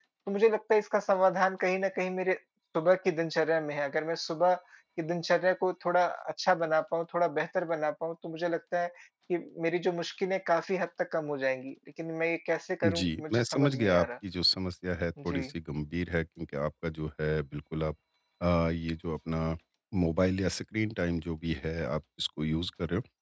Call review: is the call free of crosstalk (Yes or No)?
No